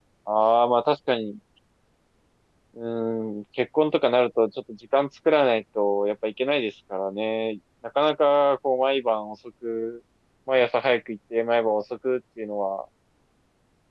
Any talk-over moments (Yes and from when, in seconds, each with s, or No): No